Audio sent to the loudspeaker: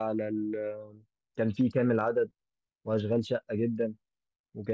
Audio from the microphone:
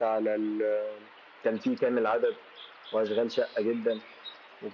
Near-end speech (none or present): none